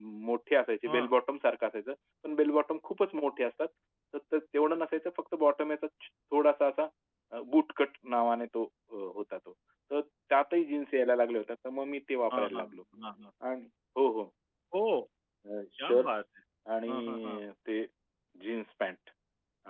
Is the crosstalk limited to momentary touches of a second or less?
Yes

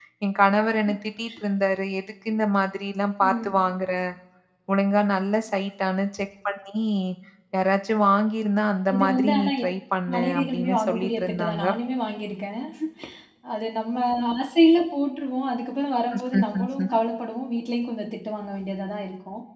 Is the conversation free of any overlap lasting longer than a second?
No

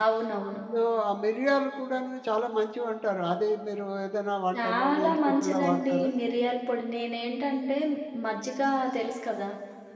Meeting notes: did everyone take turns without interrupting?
No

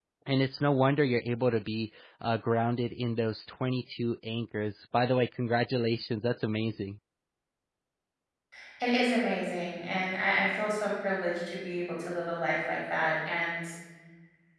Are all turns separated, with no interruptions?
Yes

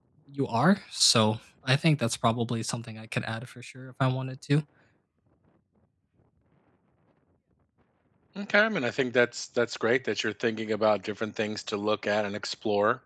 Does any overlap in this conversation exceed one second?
No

